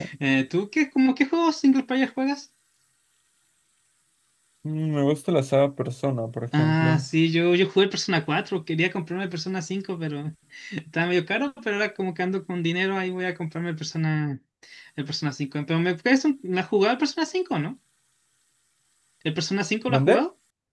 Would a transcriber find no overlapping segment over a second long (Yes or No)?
Yes